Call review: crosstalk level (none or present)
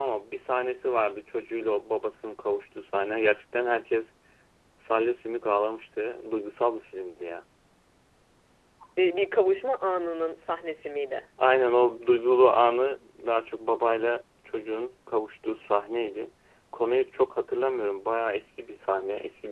none